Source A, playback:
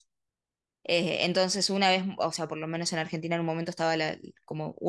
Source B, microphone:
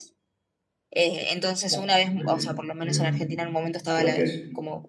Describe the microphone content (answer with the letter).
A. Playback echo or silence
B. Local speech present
B